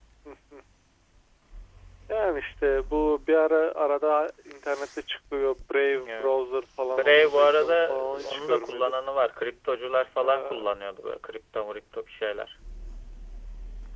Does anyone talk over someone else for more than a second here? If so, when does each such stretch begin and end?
7.0-8.9

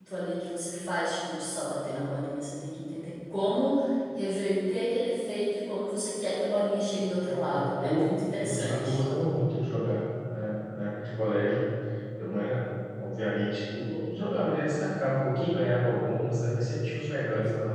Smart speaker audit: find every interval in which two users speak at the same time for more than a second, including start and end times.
7.3-9.0

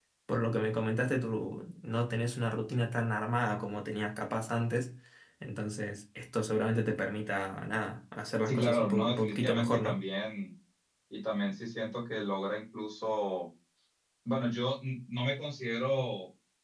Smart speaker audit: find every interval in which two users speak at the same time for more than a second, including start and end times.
8.4-10.0

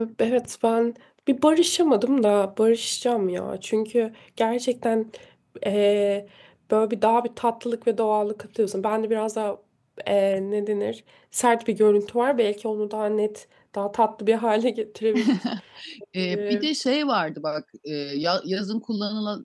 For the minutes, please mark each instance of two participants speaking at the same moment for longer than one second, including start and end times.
none

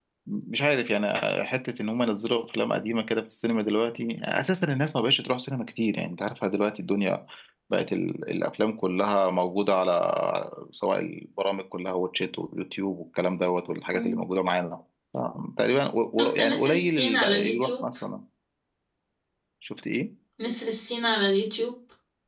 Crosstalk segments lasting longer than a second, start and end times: 16.2-17.8

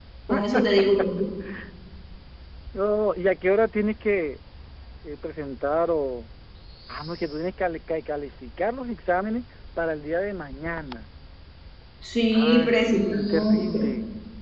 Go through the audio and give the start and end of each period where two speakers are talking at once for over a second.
12.3-13.8

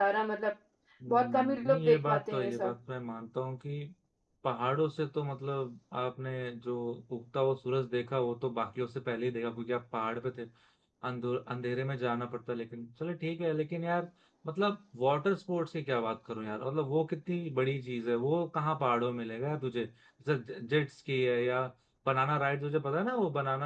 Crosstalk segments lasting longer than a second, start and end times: 1.1-2.7

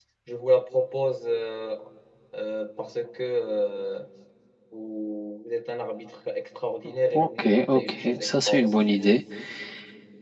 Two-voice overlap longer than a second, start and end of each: 7.1-9.0

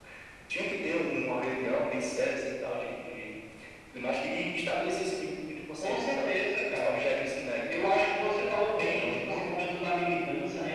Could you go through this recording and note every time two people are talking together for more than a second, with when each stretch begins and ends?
8.2-9.4

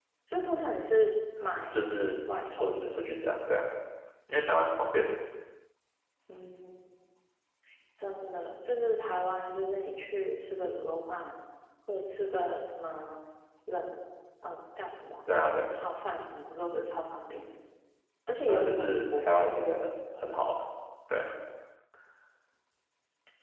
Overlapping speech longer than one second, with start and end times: 18.5-19.7

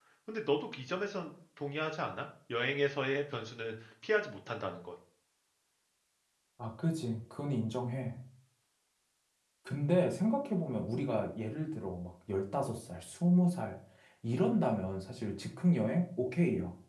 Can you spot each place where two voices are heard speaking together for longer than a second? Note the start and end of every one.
none

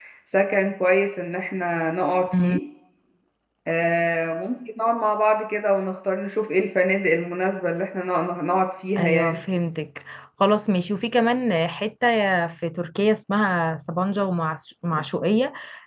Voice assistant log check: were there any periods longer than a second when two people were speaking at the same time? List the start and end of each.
none

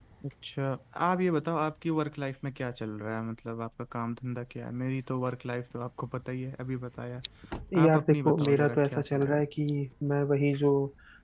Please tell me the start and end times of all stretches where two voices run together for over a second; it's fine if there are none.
7.8-9.4

